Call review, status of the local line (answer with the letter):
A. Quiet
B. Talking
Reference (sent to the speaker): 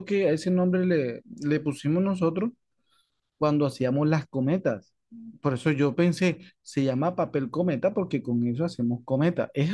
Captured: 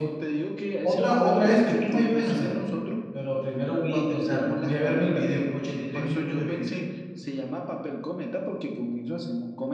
B